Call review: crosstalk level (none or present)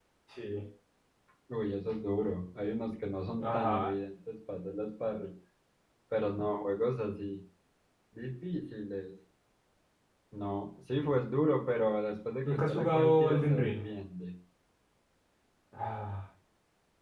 present